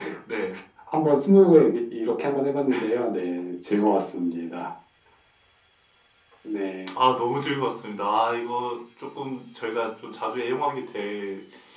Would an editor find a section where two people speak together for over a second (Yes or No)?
No